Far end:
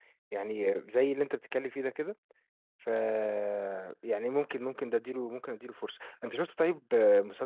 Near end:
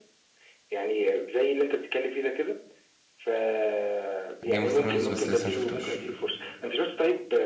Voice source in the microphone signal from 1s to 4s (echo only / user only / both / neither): echo only